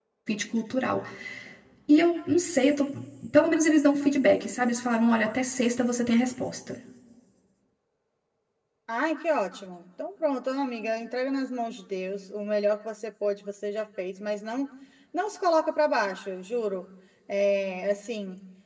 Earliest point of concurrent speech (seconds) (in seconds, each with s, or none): none